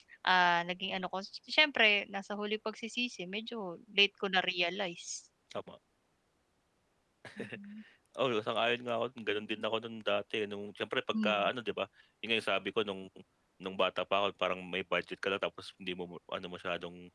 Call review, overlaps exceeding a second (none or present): none